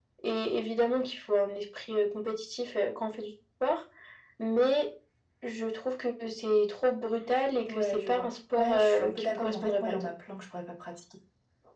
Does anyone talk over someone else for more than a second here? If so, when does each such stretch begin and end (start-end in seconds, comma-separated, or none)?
7.7-10.1